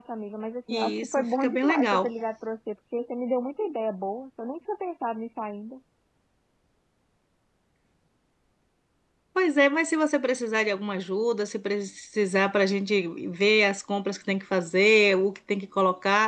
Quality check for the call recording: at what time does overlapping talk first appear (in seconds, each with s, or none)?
0.7 s